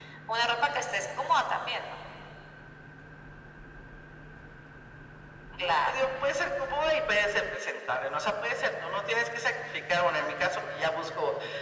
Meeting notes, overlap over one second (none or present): none